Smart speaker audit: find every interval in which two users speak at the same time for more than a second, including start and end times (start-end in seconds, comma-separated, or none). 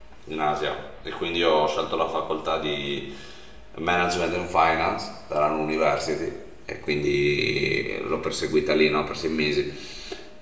none